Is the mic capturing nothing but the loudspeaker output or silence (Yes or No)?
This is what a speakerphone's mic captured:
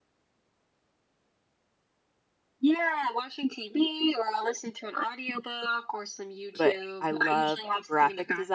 No